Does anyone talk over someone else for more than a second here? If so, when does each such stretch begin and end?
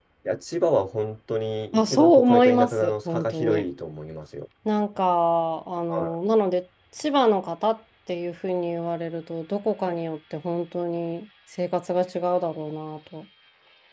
1.7-3.6

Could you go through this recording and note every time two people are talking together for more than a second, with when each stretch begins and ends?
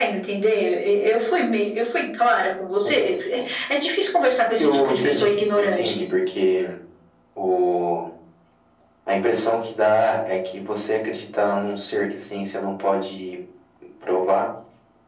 4.6-6.1

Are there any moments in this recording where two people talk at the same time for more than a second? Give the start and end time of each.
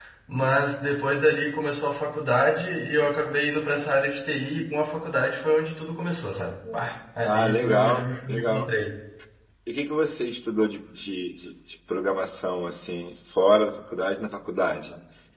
7.2-8.7

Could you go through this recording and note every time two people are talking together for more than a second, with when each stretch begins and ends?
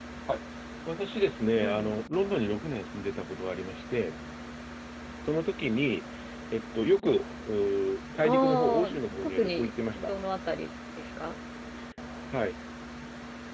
8.2-10.1

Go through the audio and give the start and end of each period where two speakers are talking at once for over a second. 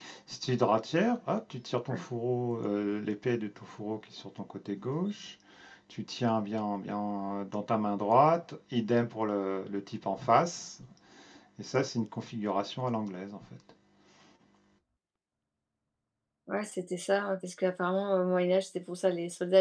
none

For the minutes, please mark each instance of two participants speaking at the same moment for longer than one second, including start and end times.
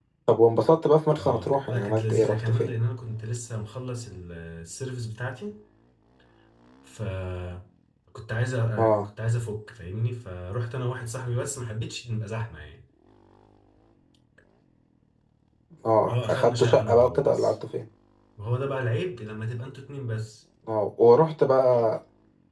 1.1-2.7, 16.1-17.5

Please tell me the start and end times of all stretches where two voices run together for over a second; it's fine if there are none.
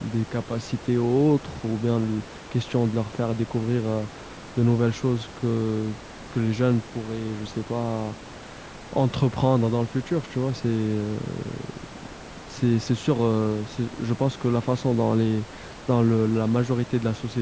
none

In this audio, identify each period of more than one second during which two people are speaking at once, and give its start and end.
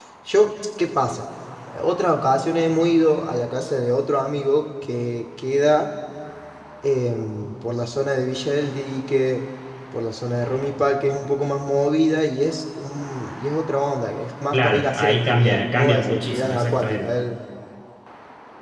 14.5-17.1

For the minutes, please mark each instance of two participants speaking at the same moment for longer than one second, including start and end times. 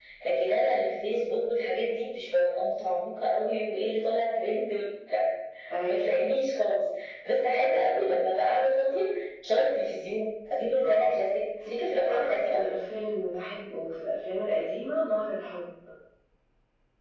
none

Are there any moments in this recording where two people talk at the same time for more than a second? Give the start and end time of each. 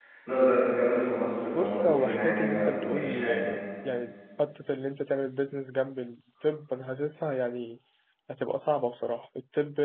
1.5-3.6

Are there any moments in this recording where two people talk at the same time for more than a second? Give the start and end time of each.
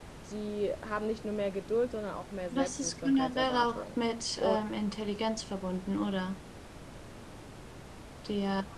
2.5-3.8

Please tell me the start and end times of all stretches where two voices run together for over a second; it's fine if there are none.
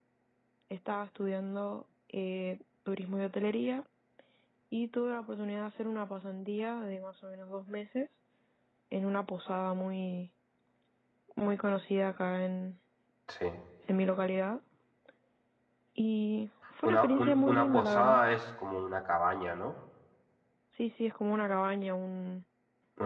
16.8-18.2

